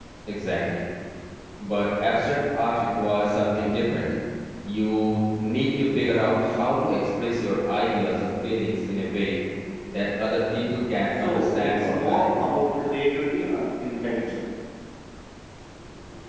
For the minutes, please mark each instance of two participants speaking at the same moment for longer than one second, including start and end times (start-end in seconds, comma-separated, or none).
11.2-12.5